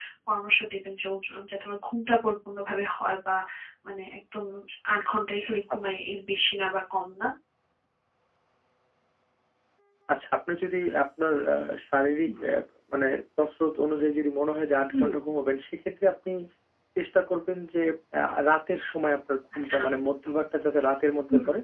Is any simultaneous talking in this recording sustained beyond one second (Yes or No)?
No